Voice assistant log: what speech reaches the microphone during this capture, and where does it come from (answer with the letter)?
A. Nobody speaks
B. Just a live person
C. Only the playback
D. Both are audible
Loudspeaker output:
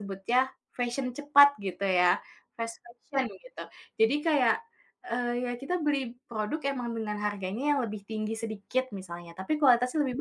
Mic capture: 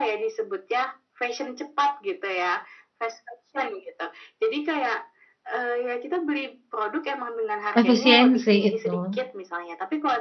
D